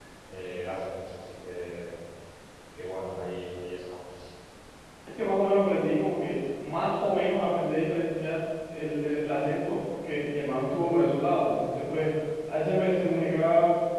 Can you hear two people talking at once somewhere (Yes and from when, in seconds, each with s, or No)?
No